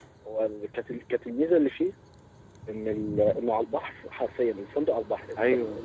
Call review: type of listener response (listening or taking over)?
listening